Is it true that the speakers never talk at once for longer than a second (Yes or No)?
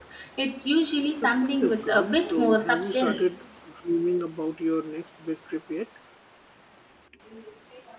No